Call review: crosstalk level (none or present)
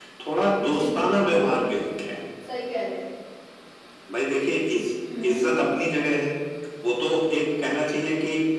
present